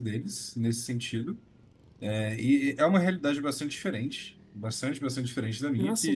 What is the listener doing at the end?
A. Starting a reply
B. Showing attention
B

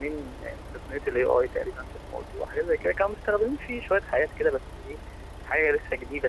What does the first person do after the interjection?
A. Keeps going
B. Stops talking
A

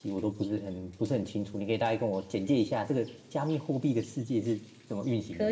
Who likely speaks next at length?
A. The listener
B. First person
A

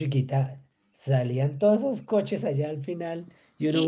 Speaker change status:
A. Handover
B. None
A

